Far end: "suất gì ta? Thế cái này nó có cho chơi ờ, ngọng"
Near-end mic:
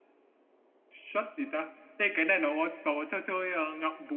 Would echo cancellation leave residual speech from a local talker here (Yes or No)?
No